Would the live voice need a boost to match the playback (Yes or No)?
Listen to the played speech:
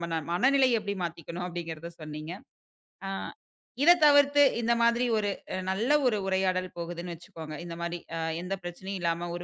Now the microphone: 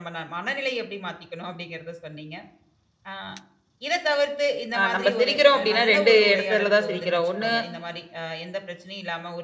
No